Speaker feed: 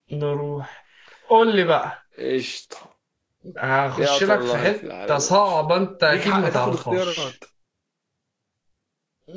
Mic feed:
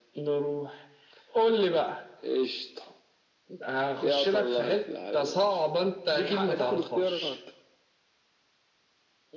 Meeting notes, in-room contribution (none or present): none